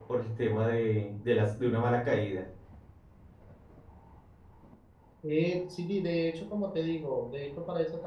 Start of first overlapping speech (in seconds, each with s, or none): none